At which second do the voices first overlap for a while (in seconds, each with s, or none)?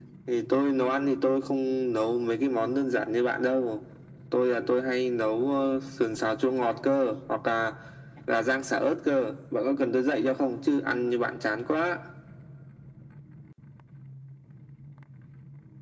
none